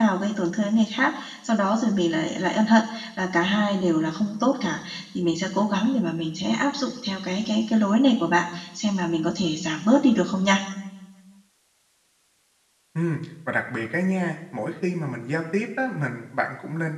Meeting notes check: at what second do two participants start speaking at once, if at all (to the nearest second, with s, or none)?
none